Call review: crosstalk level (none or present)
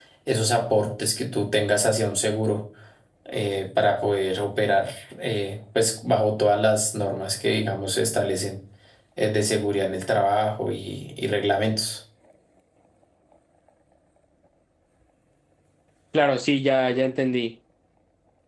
none